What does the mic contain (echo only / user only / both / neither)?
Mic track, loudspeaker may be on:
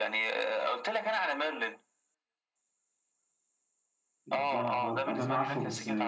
both